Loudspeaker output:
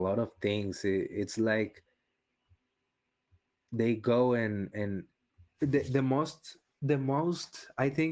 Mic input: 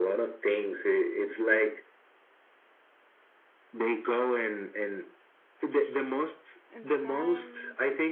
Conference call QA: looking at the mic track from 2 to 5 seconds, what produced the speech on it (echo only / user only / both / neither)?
echo only